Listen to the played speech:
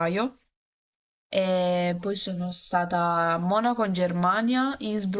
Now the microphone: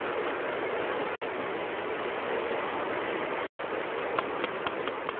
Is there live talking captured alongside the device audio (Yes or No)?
No